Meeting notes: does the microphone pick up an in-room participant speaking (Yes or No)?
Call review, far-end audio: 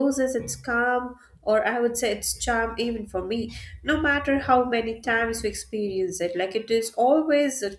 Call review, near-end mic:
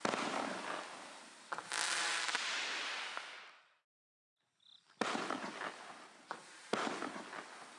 No